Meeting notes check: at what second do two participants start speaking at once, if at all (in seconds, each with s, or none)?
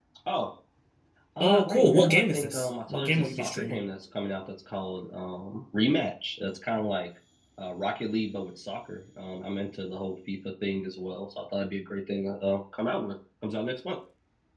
1.4 s